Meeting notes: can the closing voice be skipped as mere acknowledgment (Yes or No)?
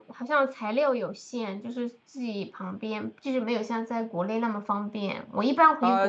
No